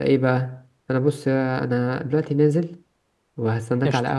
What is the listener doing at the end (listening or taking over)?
listening